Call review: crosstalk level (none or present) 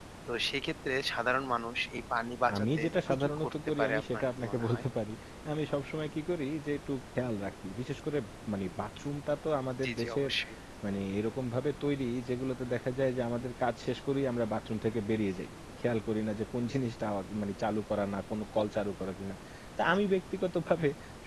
present